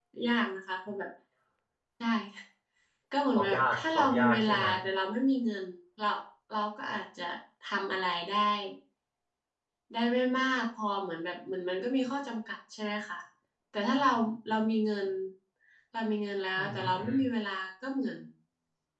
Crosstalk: present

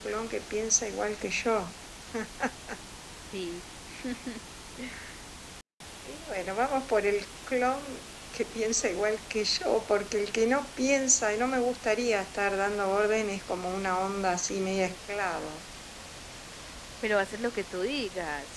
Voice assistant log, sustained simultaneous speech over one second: none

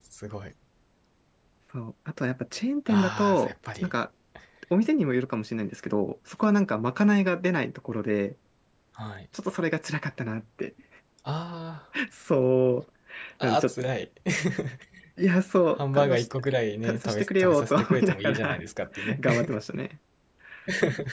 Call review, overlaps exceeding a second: present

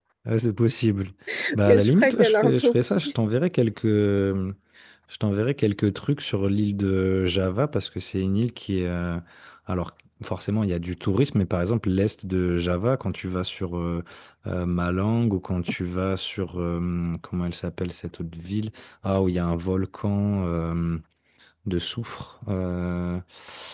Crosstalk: present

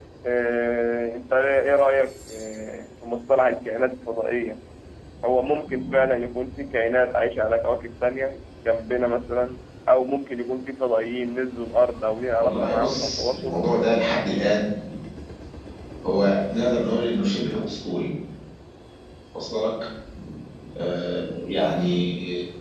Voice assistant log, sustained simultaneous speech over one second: present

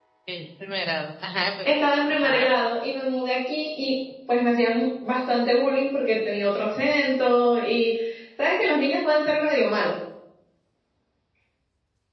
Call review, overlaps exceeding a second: none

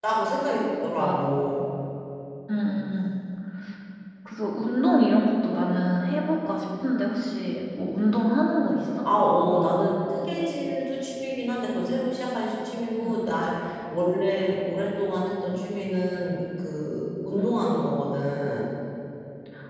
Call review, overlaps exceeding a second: none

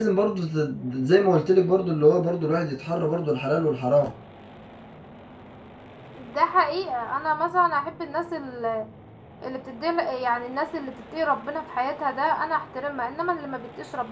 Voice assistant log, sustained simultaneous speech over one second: none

